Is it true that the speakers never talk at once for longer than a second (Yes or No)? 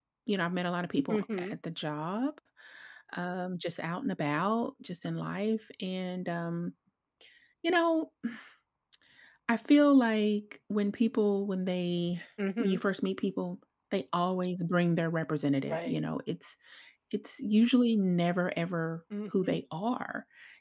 Yes